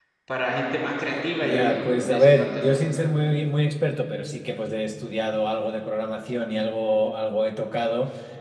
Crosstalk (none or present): present